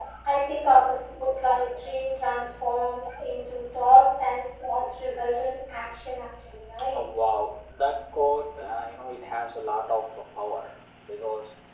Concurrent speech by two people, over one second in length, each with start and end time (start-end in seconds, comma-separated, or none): none